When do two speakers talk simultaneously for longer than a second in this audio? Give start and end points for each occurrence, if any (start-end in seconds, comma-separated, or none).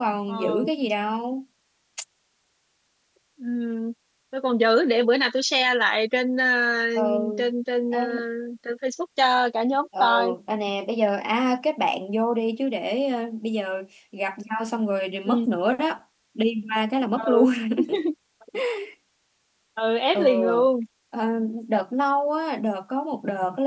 none